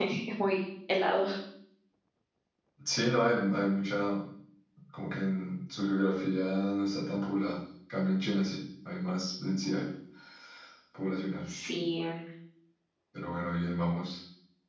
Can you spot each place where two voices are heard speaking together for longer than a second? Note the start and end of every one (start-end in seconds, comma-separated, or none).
none